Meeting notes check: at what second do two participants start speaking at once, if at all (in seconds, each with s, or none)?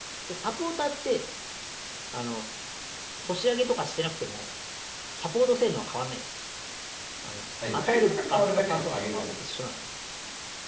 7.7 s